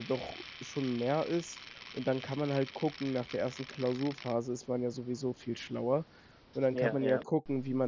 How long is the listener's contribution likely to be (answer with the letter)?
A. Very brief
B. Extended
A